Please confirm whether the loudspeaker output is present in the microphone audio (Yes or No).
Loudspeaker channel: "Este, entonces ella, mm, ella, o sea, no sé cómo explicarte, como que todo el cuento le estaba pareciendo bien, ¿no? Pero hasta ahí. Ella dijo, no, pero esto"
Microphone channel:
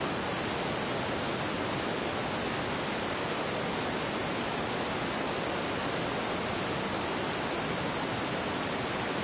No